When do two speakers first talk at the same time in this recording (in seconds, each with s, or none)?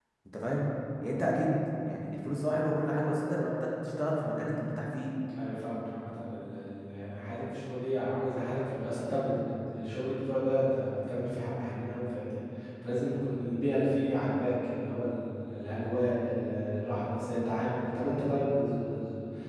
none